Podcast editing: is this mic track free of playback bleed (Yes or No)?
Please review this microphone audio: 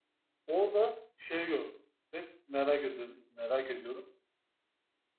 Yes